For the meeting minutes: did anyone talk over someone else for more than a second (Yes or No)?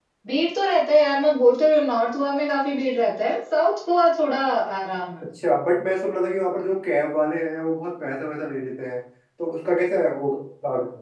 No